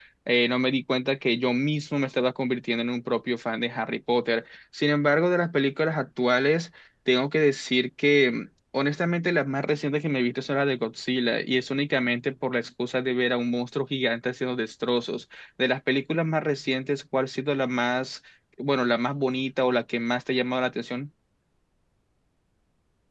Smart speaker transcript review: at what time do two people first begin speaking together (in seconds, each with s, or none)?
none